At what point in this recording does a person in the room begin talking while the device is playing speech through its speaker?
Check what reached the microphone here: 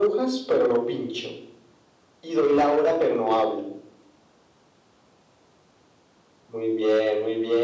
none

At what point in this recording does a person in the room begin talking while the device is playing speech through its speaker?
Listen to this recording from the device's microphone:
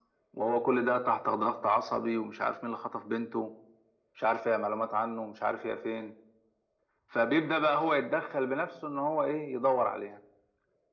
none

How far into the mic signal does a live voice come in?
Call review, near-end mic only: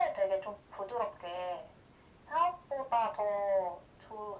none

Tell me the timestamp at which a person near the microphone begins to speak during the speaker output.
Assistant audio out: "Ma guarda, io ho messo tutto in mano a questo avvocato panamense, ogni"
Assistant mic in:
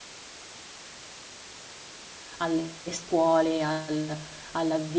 2.4 s

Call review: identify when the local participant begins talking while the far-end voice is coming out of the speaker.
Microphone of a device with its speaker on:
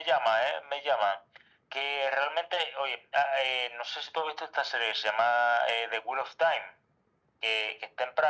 none

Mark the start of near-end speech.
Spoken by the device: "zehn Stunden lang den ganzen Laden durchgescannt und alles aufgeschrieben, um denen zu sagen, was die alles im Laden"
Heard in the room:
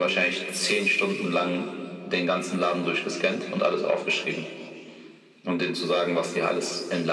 none

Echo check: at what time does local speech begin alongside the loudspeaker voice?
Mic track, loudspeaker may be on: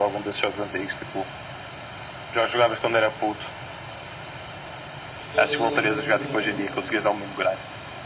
5.2 s

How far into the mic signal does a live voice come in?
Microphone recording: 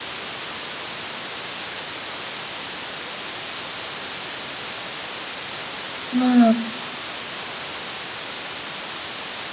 6.1 s

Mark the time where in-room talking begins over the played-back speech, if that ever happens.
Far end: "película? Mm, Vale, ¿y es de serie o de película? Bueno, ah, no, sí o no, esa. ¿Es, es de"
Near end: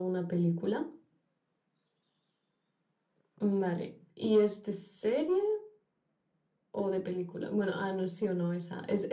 none

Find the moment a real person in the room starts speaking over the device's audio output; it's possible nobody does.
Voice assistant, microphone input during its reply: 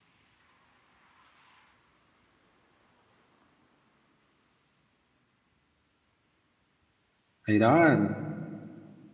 7.5 s

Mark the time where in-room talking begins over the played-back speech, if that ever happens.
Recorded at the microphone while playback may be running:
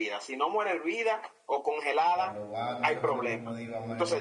2.1 s

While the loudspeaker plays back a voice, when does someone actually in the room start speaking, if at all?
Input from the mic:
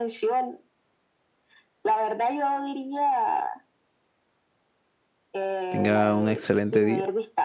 5.7 s

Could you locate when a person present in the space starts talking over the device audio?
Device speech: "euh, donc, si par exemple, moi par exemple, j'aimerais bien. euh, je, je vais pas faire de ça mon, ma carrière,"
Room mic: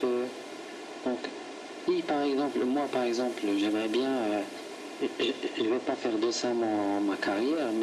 none

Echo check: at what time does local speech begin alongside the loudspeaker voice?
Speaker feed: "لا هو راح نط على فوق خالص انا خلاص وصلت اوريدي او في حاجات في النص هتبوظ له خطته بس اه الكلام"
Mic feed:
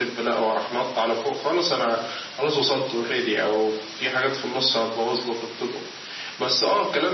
none

